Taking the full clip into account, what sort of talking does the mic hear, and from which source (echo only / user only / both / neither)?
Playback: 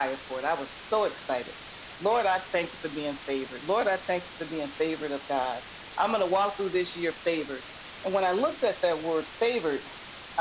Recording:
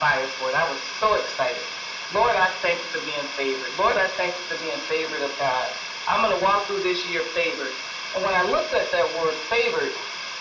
echo only